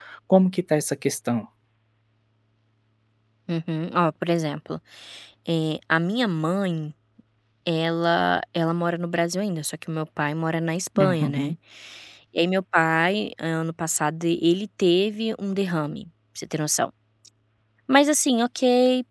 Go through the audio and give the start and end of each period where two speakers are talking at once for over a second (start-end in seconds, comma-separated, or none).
none